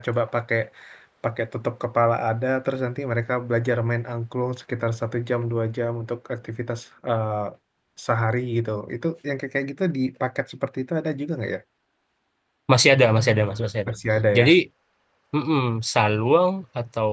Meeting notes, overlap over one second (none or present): none